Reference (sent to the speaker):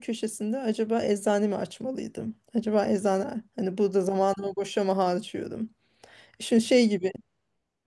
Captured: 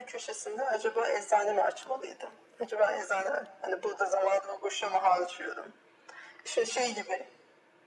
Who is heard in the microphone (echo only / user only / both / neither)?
echo only